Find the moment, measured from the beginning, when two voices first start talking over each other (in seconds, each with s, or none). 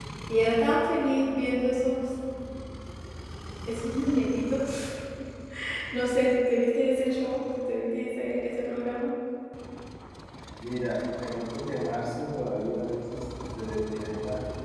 none